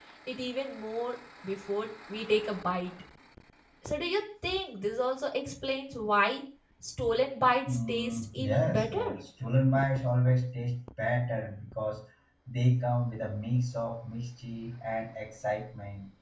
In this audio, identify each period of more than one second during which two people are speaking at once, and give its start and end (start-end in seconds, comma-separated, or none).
7.7-9.2